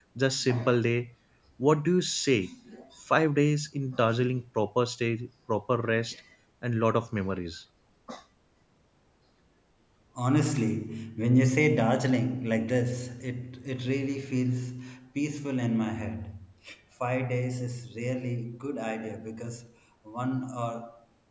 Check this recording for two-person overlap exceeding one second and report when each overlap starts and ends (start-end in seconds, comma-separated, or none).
none